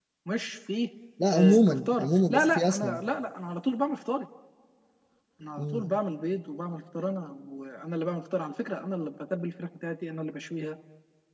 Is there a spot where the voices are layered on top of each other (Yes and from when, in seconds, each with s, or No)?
Yes, from 1.3 s